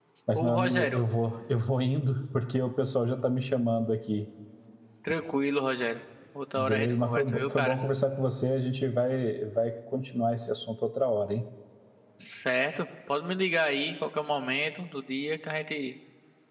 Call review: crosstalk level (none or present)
present